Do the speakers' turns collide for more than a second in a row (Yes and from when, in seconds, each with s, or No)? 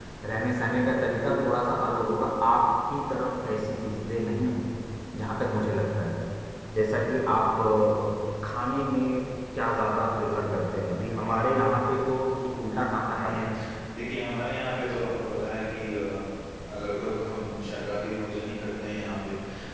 No